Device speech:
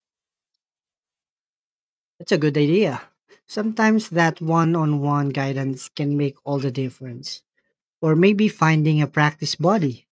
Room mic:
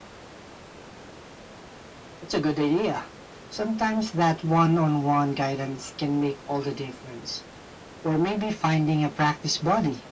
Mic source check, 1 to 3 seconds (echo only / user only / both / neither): echo only